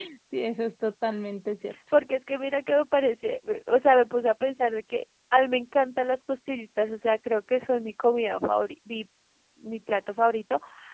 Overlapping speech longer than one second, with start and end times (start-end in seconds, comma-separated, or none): none